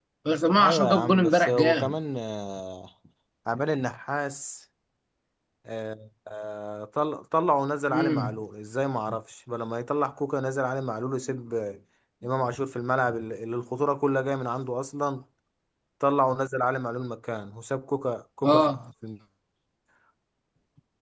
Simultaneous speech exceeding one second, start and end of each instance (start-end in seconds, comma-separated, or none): 0.6-1.9